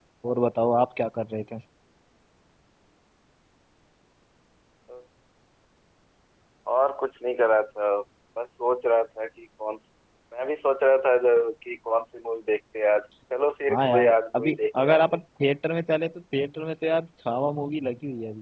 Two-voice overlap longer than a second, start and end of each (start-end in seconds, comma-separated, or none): 13.7-15.0